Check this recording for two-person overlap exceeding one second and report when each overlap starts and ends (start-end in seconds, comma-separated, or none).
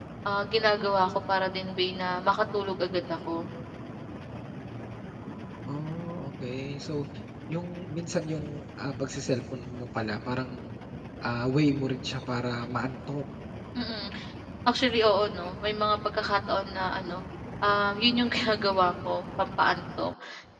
none